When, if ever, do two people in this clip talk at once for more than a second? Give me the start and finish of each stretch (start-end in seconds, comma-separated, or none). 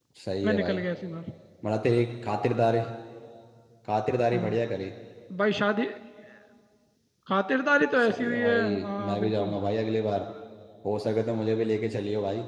8.0-9.5